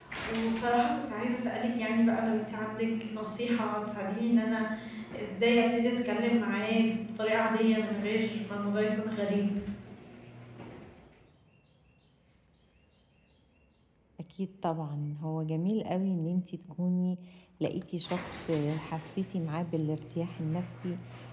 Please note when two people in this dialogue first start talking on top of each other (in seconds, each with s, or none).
none